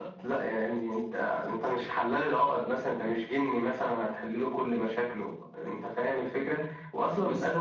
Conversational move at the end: listening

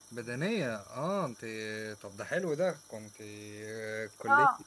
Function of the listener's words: taking over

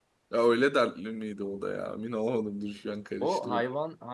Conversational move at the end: taking over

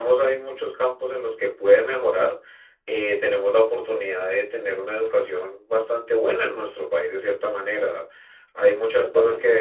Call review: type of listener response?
listening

